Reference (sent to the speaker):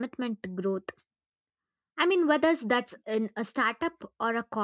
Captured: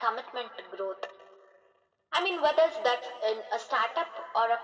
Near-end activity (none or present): none